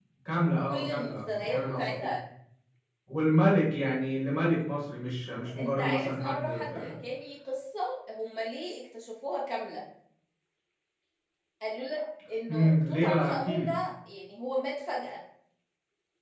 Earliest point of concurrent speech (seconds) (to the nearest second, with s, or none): 1 s